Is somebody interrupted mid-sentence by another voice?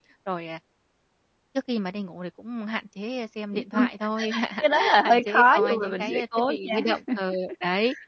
Yes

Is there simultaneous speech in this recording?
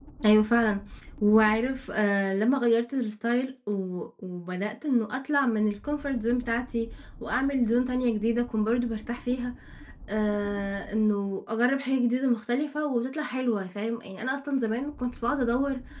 No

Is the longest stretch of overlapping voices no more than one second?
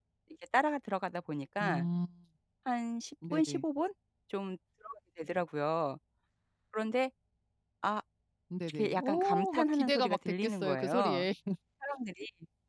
No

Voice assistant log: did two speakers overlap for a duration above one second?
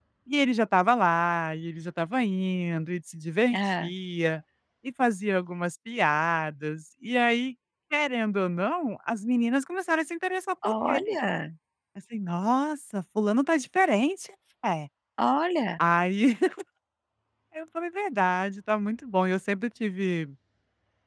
No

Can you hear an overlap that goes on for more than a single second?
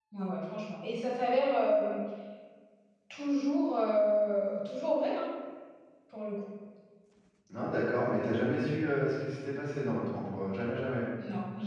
No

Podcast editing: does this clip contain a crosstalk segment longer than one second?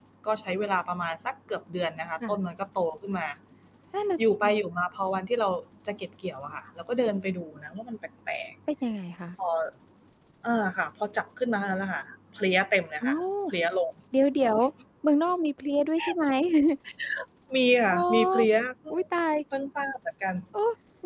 No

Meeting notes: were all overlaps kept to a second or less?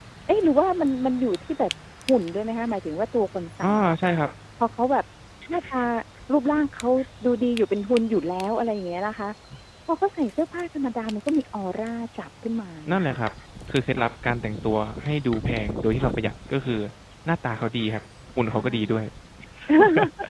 Yes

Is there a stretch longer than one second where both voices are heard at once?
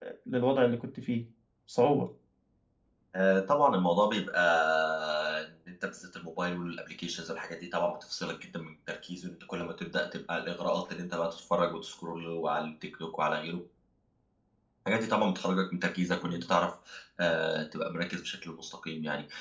No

